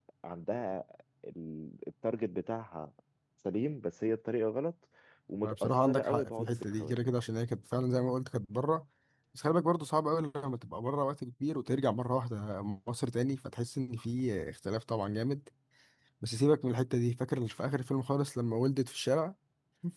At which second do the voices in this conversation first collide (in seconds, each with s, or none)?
5.4 s